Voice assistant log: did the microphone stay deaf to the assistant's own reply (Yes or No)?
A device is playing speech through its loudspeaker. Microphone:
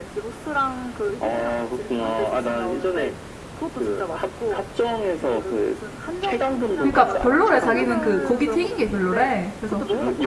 No